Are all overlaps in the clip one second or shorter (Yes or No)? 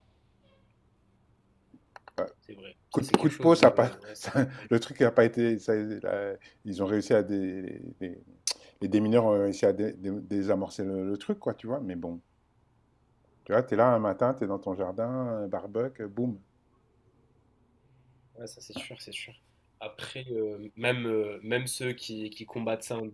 No